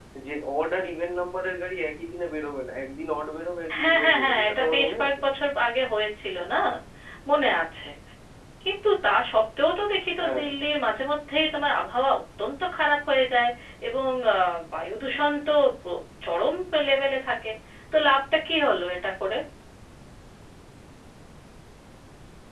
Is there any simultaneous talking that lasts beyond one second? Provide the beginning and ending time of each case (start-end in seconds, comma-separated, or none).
3.8-5.1